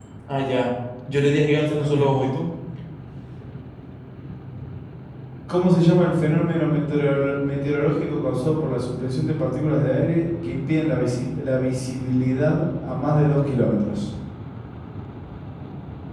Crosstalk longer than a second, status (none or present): none